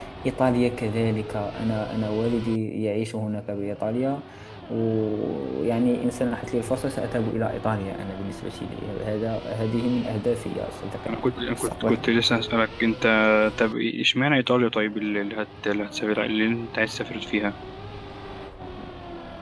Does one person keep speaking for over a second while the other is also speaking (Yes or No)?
No